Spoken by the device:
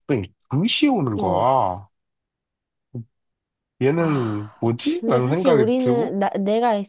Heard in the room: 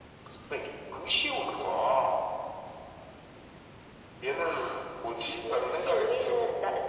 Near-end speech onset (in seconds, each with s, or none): none